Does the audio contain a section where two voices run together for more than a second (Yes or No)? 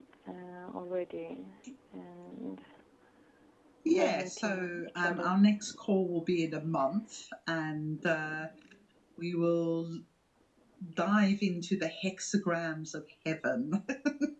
Yes